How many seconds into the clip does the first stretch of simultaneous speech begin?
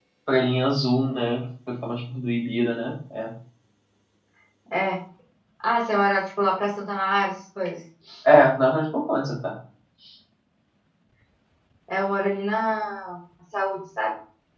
none

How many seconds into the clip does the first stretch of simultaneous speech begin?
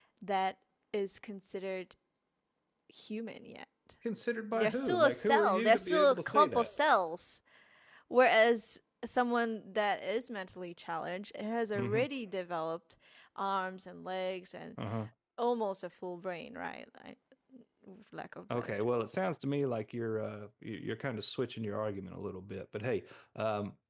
4.5 s

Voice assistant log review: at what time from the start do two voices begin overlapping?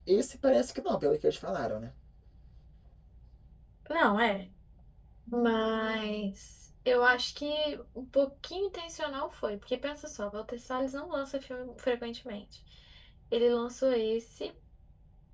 none

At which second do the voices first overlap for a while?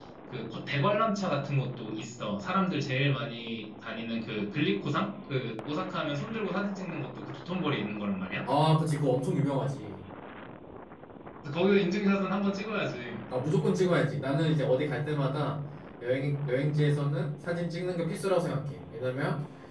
none

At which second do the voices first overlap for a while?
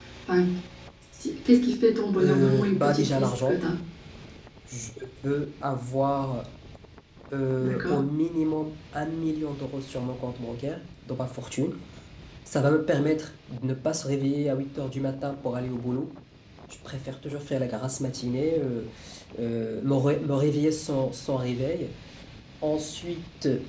2.2 s

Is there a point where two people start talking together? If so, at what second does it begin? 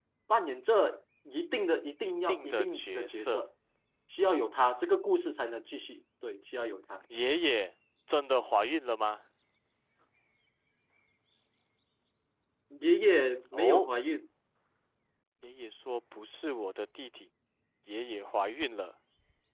2.3 s

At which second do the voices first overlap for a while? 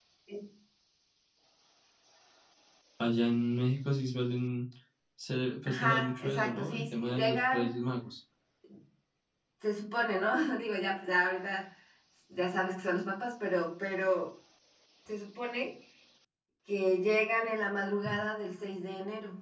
5.7 s

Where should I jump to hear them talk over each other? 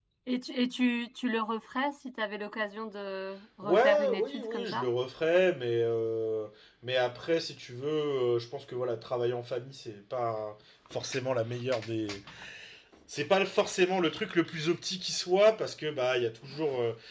3.6 s

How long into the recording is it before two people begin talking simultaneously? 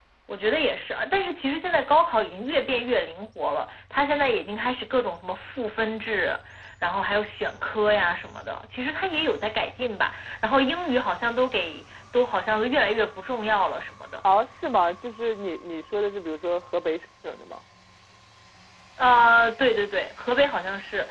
none

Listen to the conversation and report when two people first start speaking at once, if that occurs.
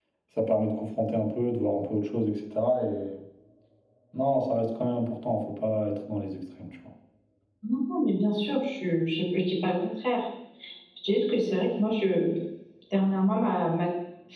none

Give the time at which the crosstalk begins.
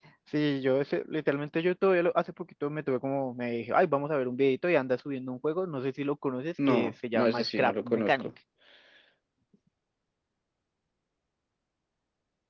6.6 s

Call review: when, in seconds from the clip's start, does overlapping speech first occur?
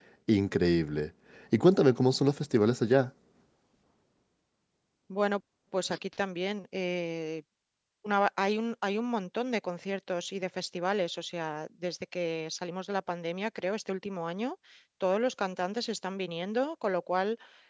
none

